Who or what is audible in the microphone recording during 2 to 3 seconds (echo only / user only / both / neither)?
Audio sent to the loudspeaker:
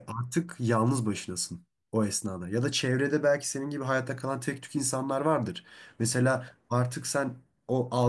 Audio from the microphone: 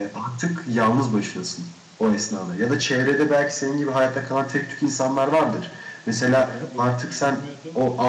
echo only